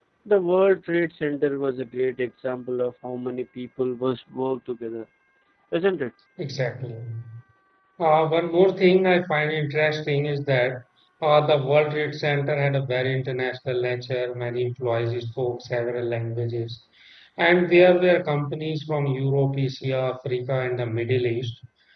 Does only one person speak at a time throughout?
Yes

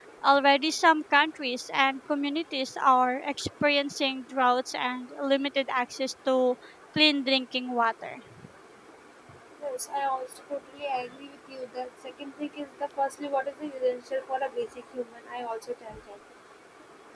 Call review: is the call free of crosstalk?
Yes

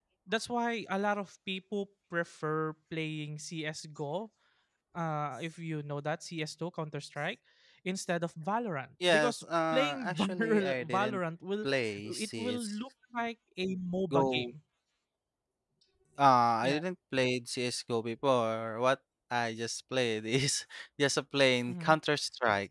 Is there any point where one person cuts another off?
Yes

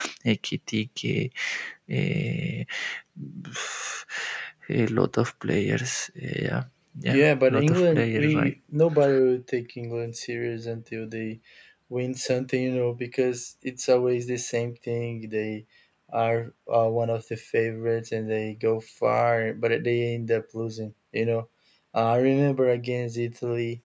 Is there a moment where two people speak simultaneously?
Yes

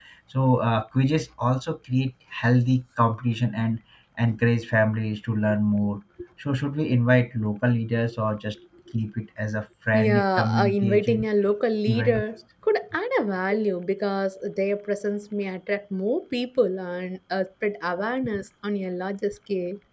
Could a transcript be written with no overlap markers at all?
No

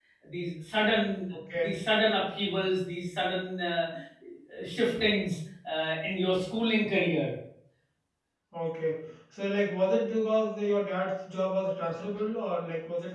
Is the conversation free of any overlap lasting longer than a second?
Yes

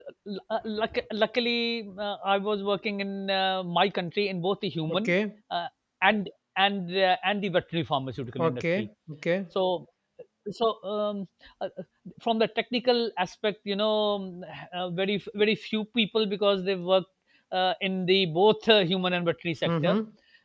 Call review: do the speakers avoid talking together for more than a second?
Yes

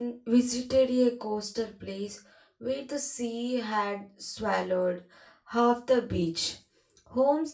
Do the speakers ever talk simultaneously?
No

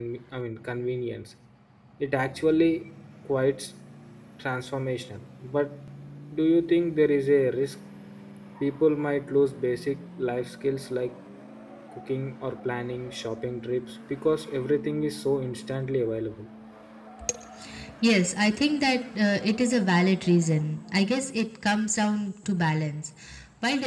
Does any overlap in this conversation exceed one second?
No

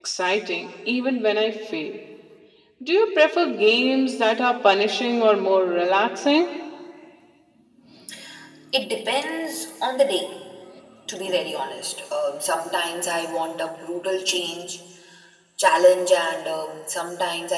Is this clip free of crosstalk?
Yes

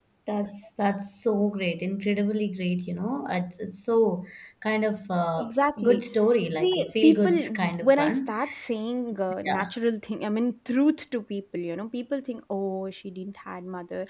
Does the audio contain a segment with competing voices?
Yes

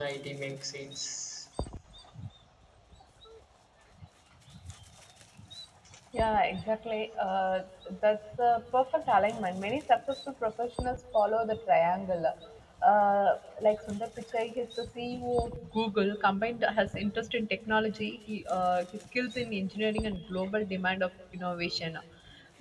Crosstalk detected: No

